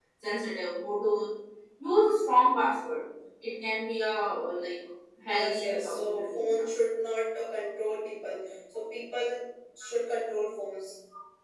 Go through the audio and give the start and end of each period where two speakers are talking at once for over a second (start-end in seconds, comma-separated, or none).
5.3-6.6